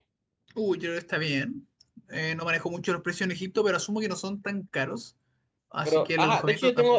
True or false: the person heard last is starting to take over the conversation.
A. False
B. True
B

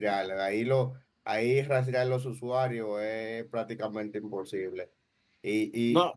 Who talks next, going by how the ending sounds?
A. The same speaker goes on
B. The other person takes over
A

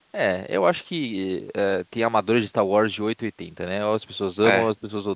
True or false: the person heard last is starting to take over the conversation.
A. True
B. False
B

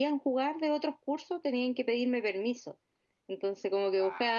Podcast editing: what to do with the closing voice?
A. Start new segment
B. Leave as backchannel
B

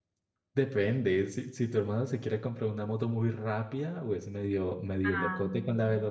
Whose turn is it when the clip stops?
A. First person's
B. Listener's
A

